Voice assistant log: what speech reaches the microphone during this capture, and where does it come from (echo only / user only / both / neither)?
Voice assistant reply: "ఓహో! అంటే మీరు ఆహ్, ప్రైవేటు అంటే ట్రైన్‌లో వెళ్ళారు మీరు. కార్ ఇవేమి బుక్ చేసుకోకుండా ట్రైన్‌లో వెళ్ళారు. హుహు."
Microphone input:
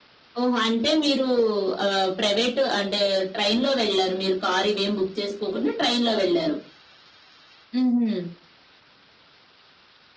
echo only